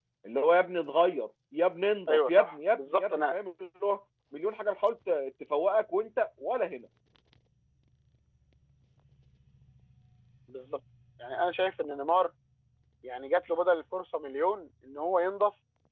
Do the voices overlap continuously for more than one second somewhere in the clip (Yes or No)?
Yes